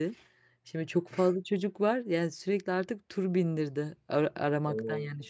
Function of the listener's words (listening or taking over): listening